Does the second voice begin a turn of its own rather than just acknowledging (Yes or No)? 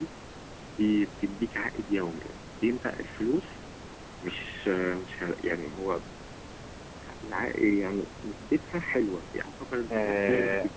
Yes